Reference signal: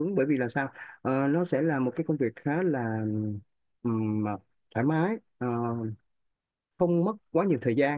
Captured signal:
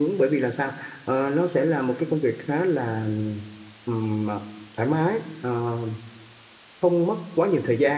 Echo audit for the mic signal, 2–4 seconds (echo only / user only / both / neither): echo only